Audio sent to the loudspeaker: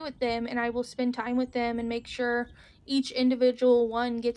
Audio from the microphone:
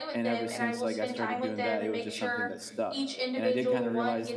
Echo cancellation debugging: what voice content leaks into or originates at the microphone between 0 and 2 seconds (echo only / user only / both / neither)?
both